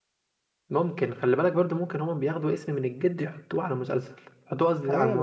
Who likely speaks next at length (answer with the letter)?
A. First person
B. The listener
B